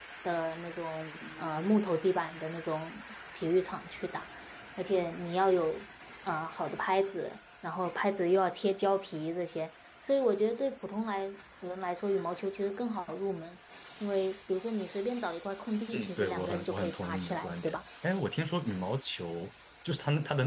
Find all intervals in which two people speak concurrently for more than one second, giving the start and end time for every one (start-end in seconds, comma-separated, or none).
15.9-17.8